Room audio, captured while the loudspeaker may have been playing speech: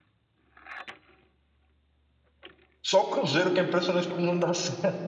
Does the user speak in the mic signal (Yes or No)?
Yes